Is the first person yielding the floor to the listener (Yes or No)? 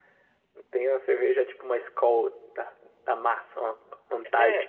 Yes